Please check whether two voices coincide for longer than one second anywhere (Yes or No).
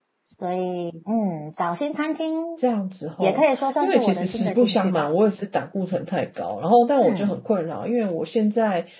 Yes